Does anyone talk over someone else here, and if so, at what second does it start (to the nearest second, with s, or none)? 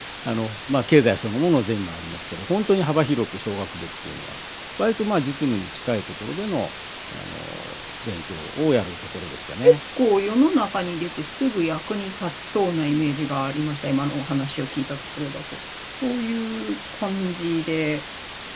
none